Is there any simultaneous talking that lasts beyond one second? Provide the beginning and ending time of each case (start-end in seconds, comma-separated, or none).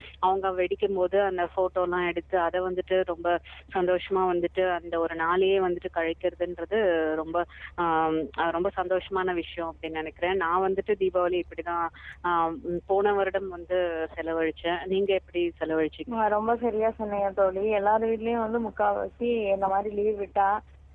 none